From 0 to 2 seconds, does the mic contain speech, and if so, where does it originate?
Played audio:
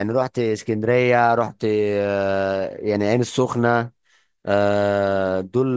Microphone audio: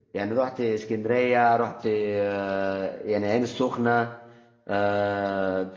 echo only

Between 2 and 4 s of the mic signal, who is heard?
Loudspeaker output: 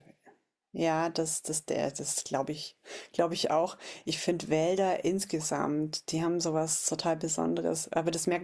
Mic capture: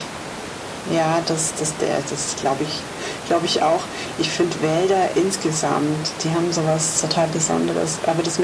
echo only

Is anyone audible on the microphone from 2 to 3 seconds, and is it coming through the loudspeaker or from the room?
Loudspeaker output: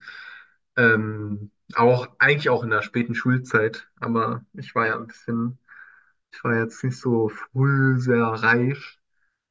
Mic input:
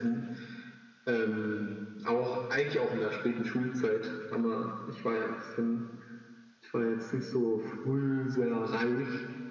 echo only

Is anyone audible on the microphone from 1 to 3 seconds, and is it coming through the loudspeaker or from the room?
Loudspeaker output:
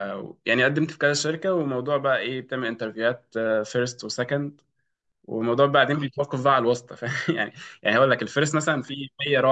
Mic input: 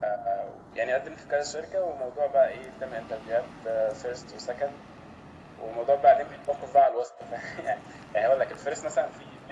echo only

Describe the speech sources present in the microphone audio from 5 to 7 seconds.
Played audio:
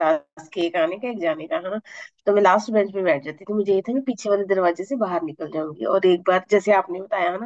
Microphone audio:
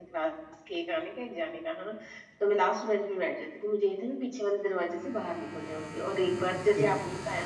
both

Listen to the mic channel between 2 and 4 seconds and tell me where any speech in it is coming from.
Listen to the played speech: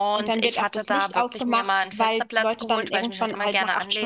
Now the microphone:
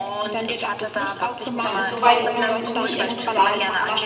both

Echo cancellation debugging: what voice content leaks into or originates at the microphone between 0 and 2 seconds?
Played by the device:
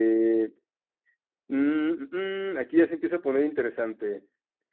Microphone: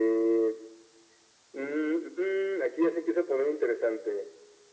echo only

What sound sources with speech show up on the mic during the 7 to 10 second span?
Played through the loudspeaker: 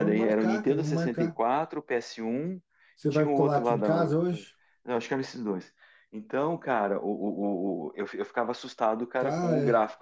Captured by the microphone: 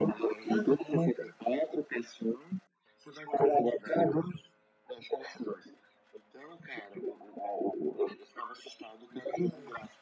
echo only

